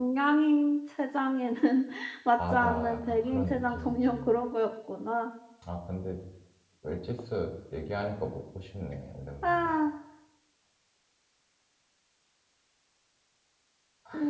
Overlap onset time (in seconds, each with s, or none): 2.5 s